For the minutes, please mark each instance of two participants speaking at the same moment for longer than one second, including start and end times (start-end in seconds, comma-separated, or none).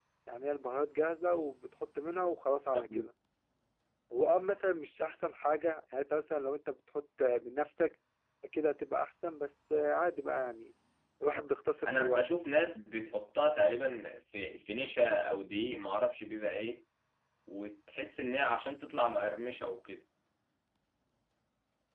none